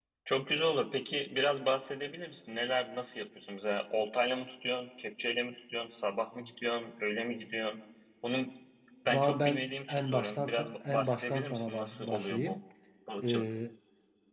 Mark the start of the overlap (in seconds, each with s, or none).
9.1 s